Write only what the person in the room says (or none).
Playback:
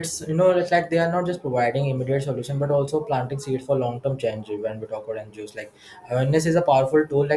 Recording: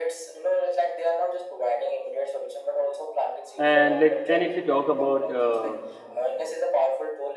and like then if we talk about uh,